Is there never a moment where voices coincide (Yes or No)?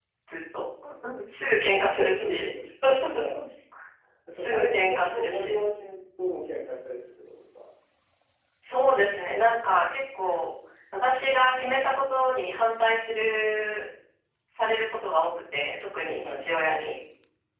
No